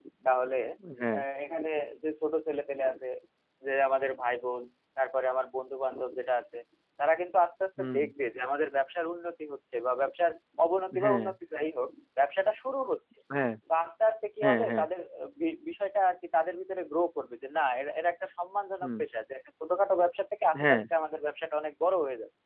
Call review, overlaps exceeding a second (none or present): none